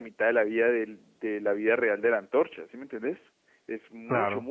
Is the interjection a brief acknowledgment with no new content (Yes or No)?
Yes